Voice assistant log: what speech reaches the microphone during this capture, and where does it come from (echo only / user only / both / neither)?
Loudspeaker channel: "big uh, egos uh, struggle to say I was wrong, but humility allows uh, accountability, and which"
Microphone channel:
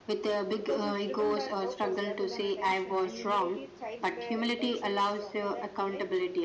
both